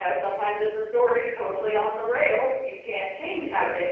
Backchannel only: Yes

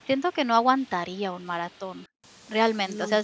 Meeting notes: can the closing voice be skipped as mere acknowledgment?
Yes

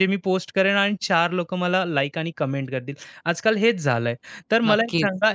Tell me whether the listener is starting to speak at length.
No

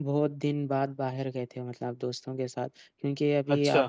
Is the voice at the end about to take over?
No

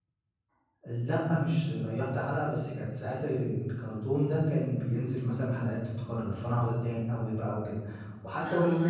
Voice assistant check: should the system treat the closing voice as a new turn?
Yes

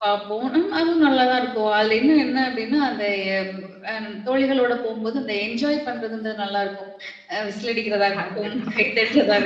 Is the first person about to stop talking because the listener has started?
No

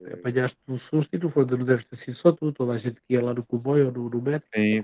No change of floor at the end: No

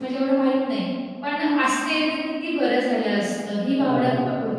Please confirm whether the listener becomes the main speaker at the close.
Yes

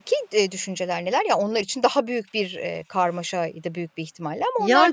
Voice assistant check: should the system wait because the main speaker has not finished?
No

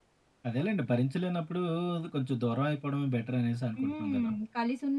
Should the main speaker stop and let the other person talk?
Yes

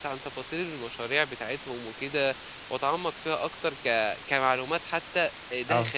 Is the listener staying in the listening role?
Yes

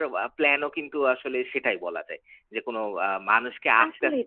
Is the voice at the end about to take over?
Yes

